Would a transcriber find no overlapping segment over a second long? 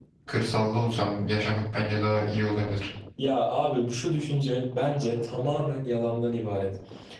Yes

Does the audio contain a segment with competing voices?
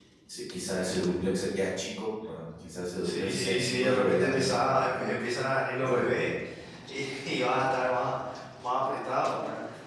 Yes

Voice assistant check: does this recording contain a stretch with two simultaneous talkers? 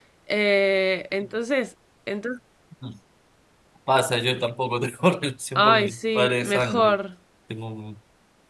Yes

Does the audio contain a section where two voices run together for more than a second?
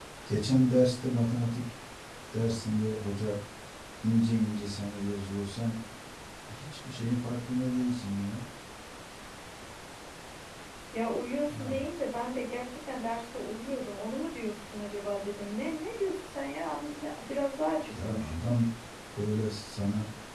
No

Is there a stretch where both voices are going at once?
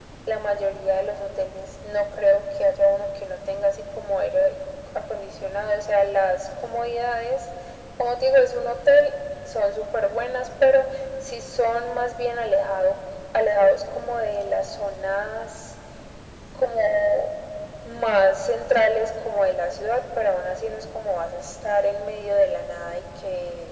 No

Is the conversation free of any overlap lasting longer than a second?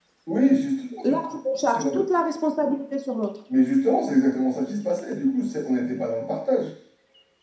Yes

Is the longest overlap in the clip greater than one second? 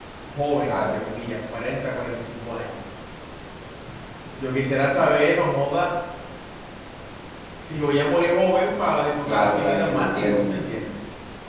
Yes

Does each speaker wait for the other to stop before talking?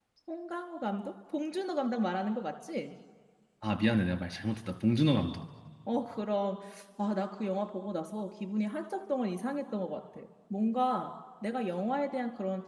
Yes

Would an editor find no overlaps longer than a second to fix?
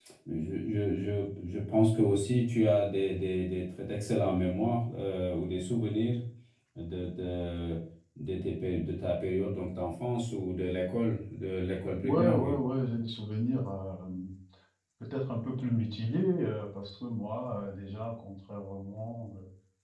Yes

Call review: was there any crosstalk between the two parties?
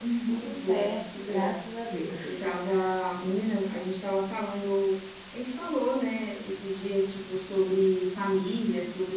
Yes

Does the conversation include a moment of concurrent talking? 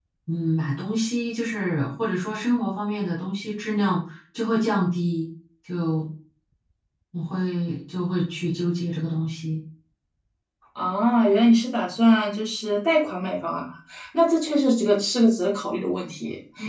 No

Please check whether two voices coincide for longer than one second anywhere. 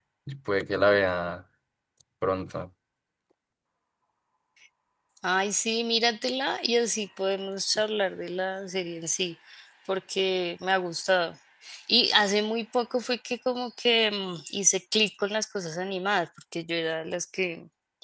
No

